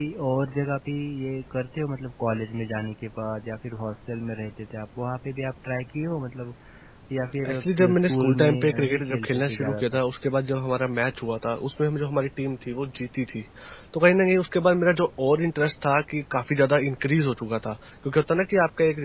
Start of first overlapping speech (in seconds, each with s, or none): 7.5 s